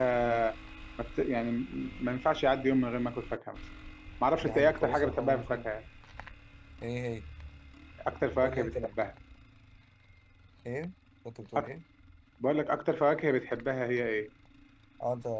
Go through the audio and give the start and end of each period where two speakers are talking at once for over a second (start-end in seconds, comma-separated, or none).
4.4-5.7